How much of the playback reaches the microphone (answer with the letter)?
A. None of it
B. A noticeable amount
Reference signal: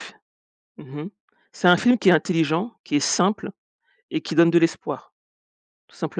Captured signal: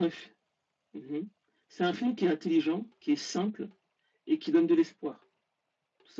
B